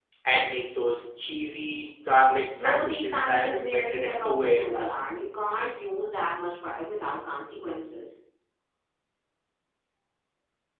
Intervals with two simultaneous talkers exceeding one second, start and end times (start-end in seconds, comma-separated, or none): 2.5-4.9